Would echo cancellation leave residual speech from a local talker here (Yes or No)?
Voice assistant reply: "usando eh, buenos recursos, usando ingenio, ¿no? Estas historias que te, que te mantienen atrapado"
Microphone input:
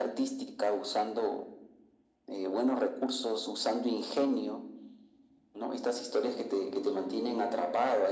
No